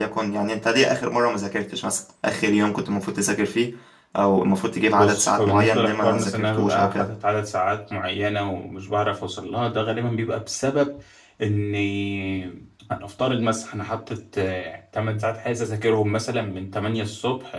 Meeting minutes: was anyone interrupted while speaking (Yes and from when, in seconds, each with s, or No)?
Yes, from 4.9 s